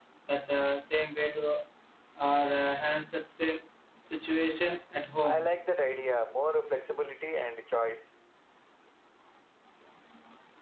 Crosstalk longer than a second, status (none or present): none